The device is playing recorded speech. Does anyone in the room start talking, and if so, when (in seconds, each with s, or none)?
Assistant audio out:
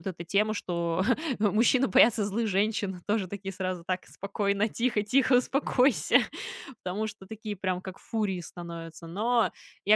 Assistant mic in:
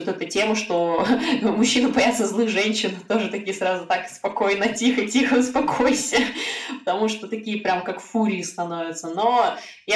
none